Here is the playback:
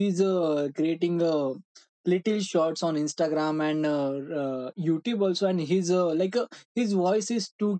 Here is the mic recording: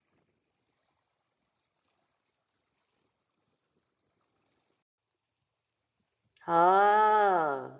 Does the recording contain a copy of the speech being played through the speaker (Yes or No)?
No